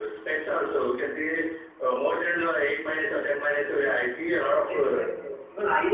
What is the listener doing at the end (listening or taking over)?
taking over